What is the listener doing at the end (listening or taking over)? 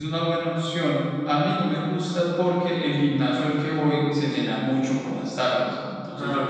listening